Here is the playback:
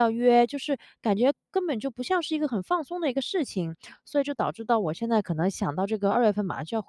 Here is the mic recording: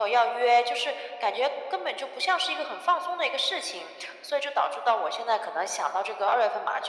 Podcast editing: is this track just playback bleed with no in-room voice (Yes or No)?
Yes